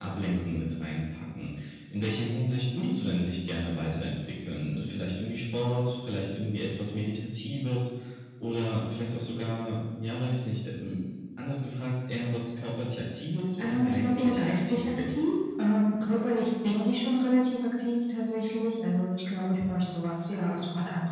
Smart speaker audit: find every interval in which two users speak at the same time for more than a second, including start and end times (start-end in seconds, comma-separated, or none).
13.6-15.2